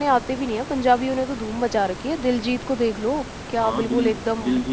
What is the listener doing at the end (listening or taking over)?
taking over